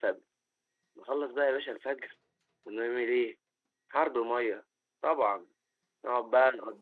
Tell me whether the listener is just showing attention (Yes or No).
Yes